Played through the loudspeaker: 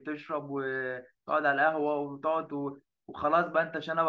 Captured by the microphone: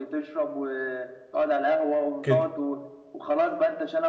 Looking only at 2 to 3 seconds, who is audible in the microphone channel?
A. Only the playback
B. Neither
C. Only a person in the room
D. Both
D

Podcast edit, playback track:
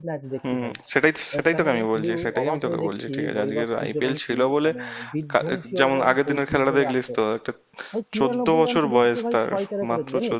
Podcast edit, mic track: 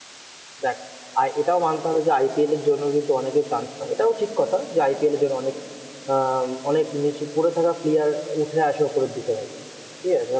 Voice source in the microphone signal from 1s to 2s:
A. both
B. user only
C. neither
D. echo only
B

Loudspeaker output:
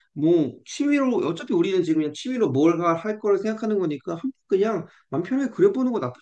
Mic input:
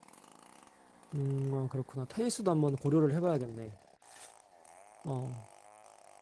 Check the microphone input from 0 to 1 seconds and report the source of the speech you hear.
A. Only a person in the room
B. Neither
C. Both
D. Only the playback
B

